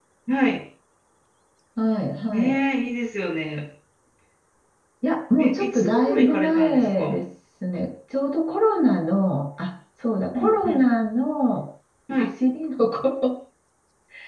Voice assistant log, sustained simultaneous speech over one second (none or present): present